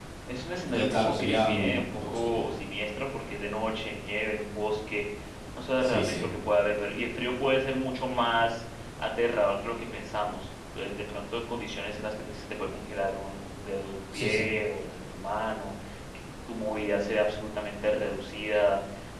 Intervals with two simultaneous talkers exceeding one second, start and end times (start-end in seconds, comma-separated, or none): 0.7-2.5